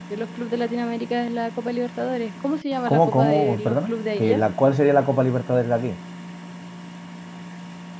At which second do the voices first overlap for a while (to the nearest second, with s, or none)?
3 s